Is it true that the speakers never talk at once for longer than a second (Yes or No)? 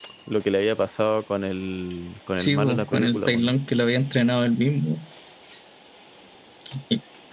No